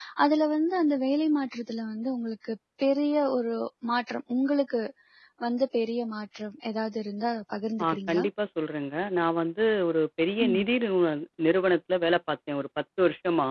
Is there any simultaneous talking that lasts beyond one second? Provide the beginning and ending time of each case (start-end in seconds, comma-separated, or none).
none